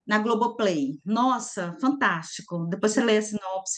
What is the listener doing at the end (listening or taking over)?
listening